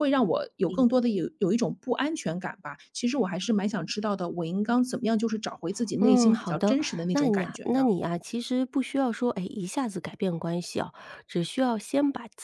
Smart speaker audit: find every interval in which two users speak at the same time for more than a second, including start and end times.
6.0-7.9

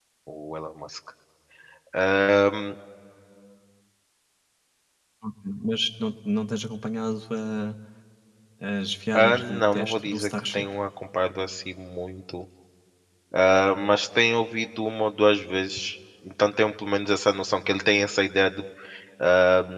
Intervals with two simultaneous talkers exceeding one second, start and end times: 9.1-10.7

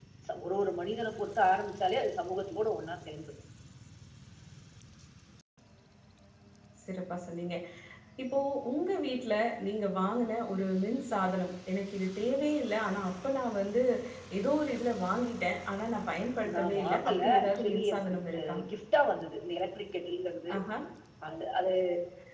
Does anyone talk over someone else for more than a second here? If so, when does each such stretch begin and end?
16.5-18.6

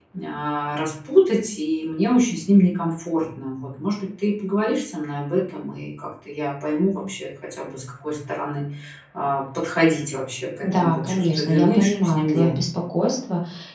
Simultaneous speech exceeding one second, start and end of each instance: 10.6-12.6

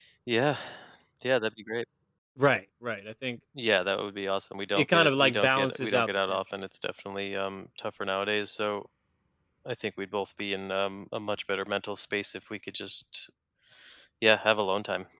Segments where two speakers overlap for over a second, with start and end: 4.8-6.4

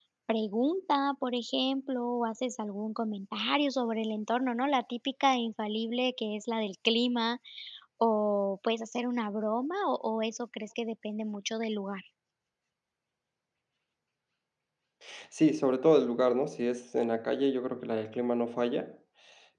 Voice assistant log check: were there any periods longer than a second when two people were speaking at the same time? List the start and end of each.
none

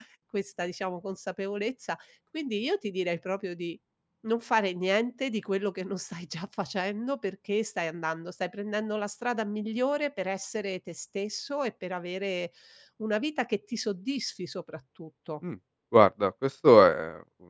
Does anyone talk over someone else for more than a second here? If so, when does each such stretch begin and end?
none

